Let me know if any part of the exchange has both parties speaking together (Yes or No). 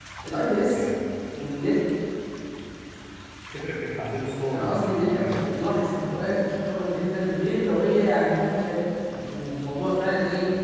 Yes